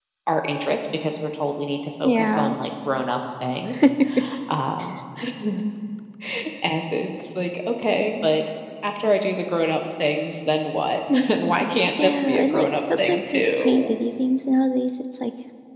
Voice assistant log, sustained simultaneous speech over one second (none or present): present